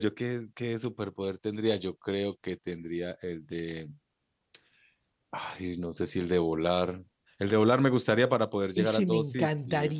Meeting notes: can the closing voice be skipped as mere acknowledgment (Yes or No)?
No